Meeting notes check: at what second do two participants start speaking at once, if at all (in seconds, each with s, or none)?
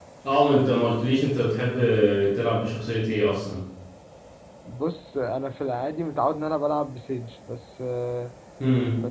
none